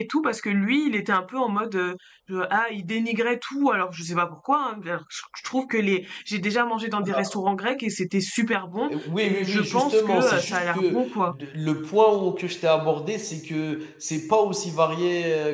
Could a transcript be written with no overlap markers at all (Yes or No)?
No